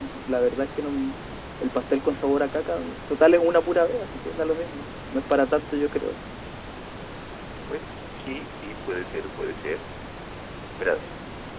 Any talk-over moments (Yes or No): No